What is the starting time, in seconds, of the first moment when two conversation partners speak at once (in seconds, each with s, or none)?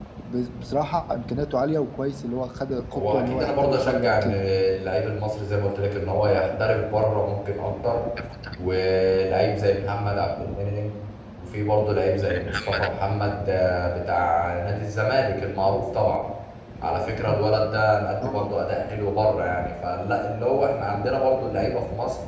2.9 s